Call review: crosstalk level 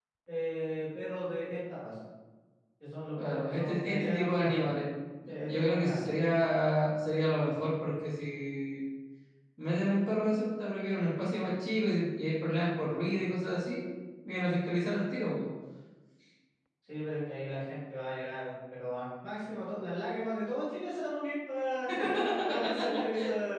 present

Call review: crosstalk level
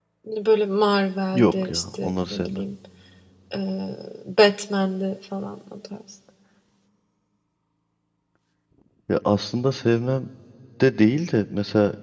present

